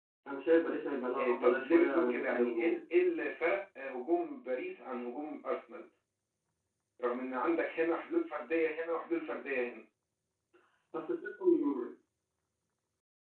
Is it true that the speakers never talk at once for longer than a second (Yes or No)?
No